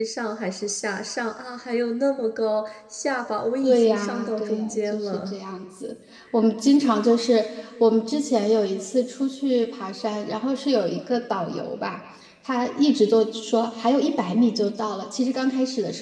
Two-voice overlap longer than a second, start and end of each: 3.6-5.3

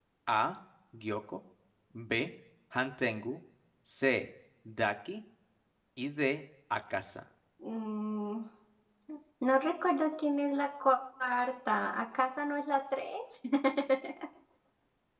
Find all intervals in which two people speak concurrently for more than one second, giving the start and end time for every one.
none

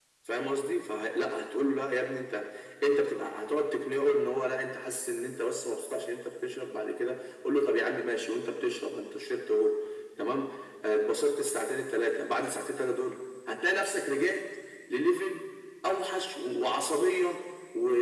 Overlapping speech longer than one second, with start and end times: none

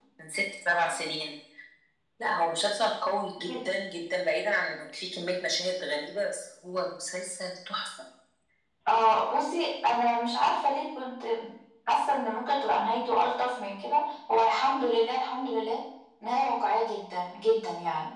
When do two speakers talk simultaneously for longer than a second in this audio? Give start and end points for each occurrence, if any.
none

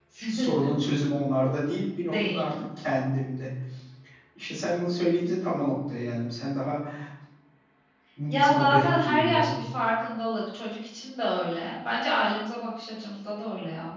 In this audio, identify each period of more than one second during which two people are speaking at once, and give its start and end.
8.3-9.6

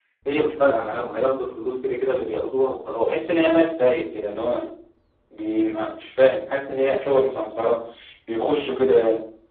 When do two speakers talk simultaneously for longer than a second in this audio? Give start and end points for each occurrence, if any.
none

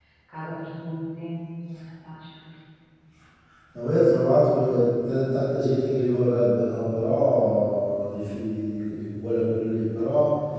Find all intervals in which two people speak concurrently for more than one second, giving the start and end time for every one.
none

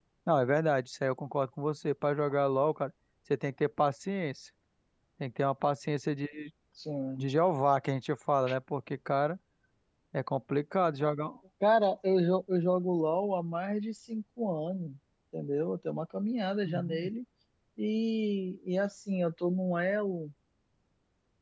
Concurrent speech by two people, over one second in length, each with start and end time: none

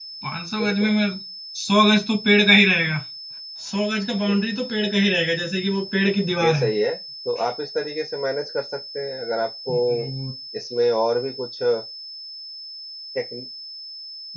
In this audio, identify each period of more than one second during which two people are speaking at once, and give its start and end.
none

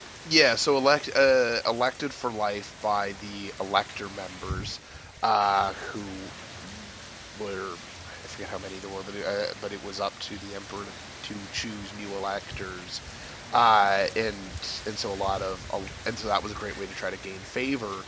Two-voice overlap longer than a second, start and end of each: none

